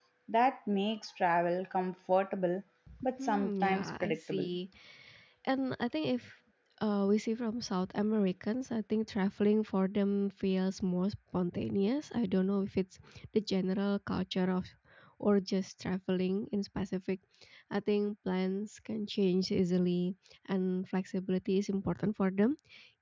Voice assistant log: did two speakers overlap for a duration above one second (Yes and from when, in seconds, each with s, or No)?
Yes, from 3.2 s